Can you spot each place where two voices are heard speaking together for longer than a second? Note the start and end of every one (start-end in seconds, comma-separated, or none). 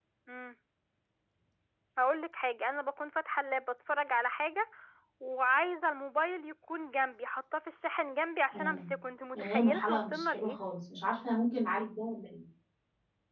9.3-10.6